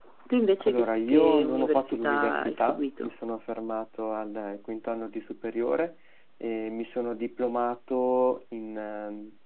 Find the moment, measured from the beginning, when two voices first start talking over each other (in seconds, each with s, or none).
0.6 s